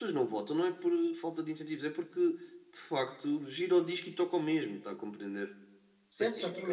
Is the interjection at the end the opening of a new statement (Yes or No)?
Yes